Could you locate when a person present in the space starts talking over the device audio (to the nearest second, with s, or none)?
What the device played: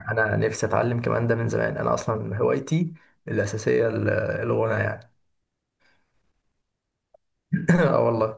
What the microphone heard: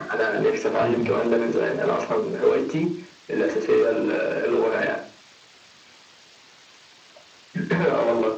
1 s